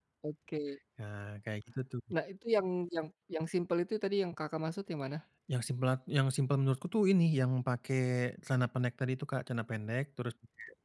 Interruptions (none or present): none